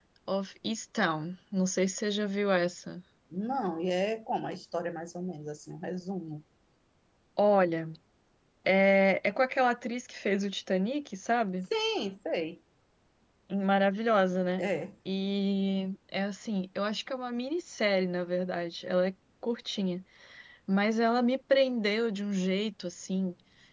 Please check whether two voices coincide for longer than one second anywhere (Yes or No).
No